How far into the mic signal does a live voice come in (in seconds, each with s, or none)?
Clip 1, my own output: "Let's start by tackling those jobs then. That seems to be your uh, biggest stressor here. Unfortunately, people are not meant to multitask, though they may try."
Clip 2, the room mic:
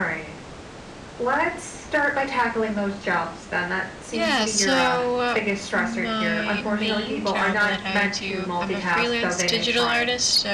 4.1 s